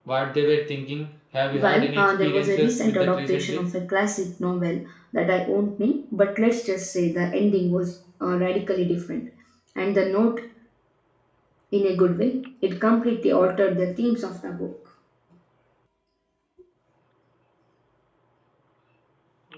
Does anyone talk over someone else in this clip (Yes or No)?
Yes